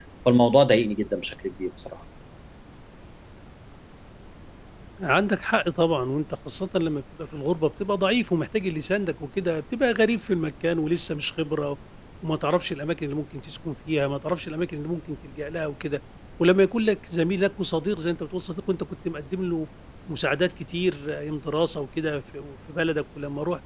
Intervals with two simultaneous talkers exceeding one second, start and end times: none

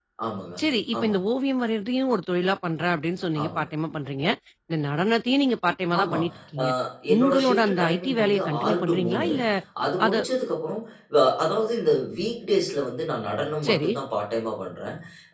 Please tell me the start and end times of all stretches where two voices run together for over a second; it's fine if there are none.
7.2-9.3

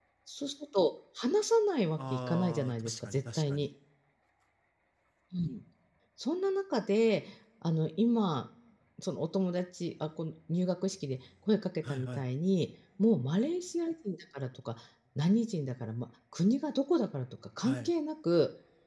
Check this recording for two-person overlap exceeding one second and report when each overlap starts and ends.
2.0-3.7

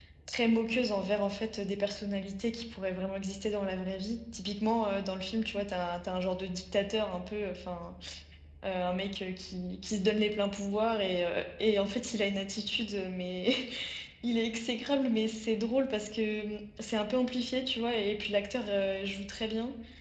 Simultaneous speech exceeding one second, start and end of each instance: none

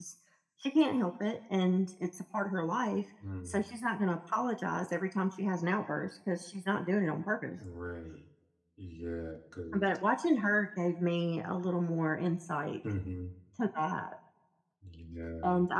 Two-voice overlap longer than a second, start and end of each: none

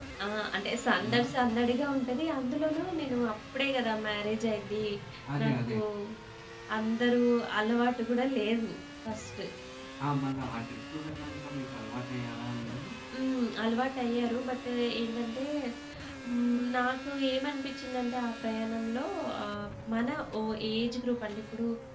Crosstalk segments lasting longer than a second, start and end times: none

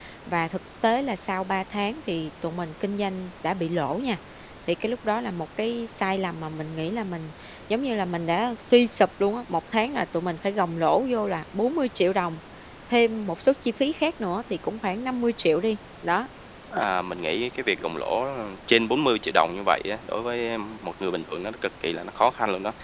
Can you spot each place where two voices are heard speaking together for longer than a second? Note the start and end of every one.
none

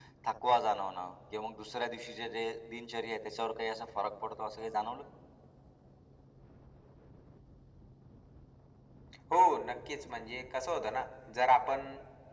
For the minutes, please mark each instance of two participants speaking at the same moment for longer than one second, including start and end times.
none

